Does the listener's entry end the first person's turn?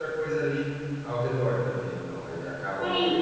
Yes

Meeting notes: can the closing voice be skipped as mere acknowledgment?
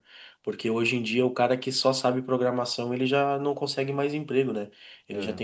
Yes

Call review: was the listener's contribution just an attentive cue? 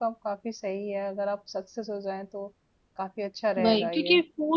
No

